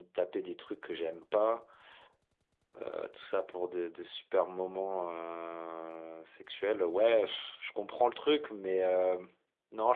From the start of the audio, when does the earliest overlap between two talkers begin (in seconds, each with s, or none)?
none